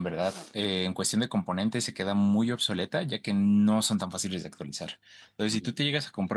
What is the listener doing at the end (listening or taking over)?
listening